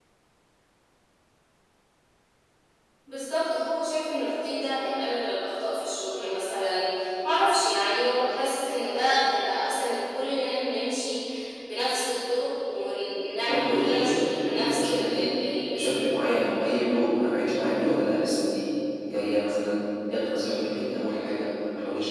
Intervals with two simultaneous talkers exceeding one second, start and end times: 13.5-15.0

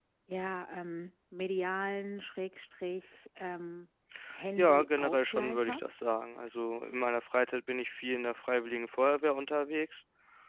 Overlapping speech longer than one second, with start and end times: 4.6-5.9

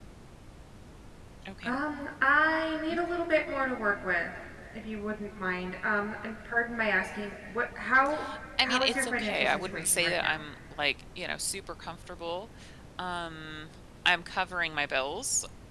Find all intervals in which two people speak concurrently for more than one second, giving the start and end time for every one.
8.6-10.4

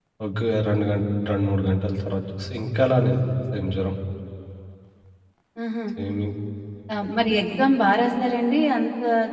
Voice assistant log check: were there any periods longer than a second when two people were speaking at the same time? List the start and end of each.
none

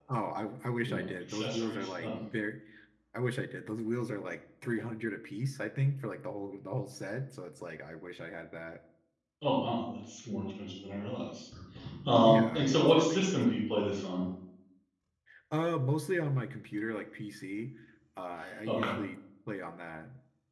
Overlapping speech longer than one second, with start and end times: 0.8-2.1, 12.2-13.6

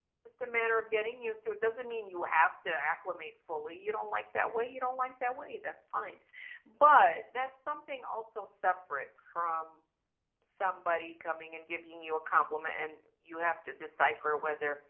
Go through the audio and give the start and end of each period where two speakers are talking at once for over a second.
none

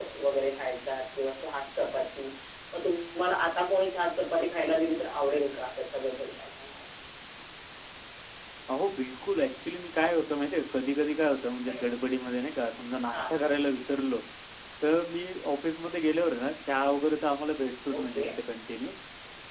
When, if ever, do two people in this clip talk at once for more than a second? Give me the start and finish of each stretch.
none

